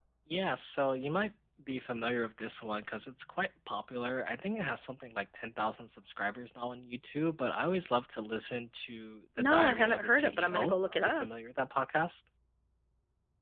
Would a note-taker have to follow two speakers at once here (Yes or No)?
Yes